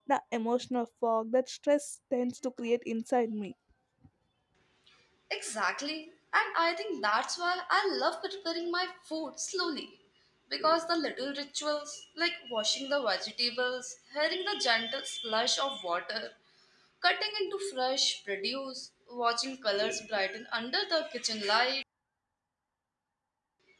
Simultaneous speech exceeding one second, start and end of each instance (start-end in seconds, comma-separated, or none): none